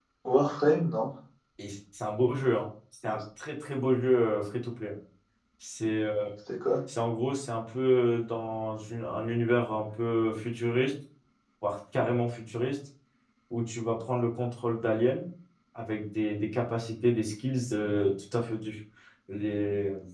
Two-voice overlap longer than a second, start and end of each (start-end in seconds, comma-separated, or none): none